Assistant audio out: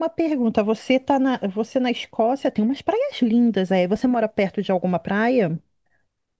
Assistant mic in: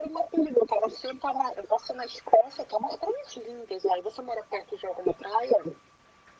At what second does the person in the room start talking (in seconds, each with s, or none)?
none